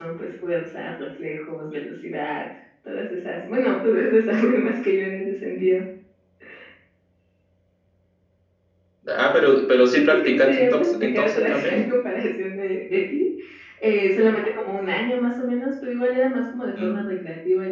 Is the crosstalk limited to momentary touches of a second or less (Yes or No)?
No